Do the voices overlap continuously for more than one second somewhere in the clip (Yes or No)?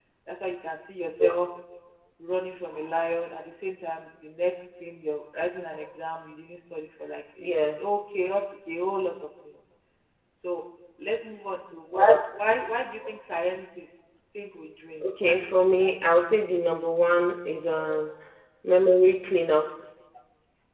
Yes